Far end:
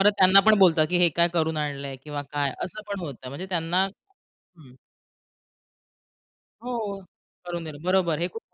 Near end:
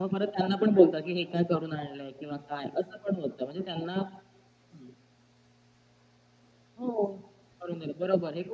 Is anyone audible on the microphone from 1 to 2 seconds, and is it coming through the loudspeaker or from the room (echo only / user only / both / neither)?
echo only